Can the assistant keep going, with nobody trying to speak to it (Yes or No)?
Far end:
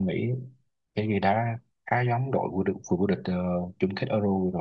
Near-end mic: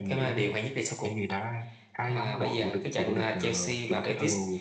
No